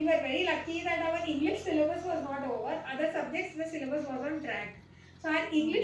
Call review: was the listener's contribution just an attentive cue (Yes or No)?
Yes